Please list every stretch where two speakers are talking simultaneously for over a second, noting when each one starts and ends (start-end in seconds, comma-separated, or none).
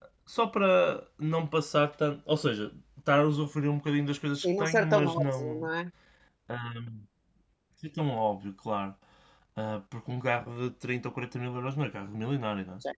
4.4-5.7